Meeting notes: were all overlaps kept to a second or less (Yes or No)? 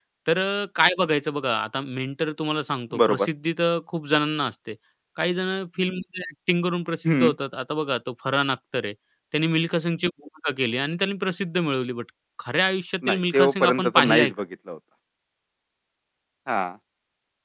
No